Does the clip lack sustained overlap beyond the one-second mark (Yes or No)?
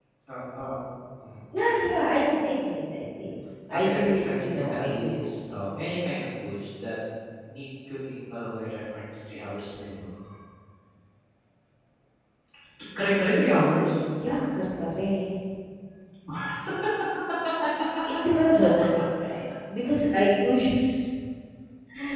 No